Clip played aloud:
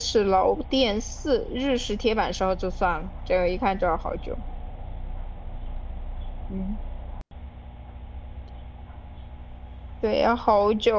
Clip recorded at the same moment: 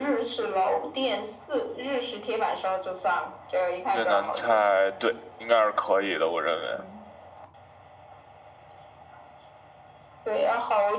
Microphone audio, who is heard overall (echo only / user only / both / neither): both